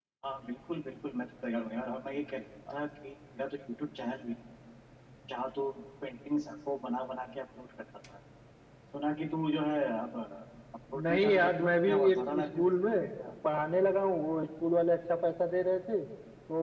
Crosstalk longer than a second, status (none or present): present